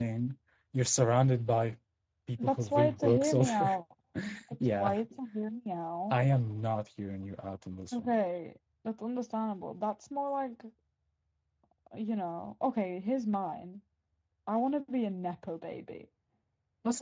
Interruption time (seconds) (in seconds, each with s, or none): 2.4 s